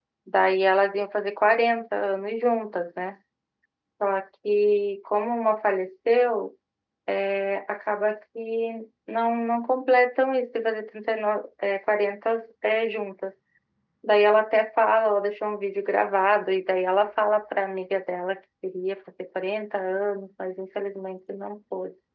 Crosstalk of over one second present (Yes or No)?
No